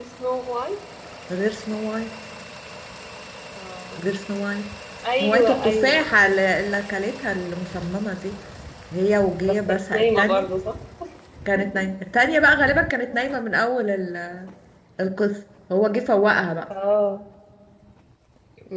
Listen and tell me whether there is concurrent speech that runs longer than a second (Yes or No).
Yes